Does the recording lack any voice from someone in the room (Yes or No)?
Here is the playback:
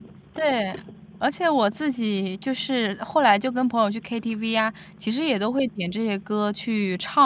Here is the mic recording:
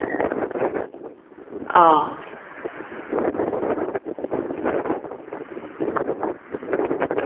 No